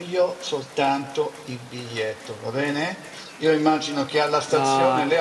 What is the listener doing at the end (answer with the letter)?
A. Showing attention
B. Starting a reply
A